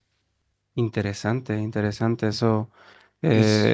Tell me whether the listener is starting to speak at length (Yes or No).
No